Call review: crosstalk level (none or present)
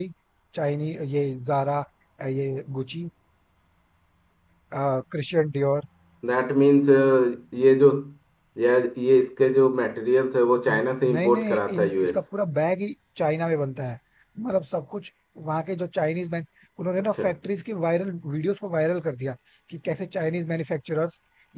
present